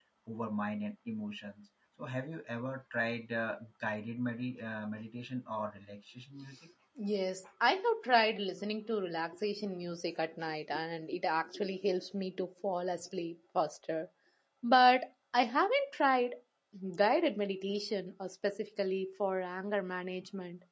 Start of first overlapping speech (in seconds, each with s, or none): none